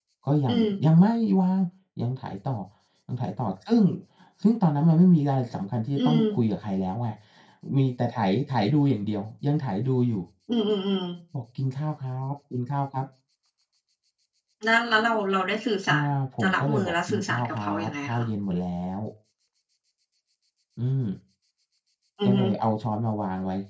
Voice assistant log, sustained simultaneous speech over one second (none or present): present